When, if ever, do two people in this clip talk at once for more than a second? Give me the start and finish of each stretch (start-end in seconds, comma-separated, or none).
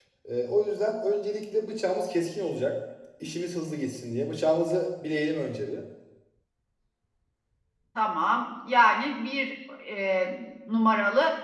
none